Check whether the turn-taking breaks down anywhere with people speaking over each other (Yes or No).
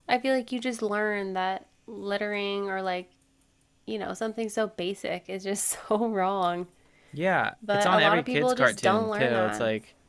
Yes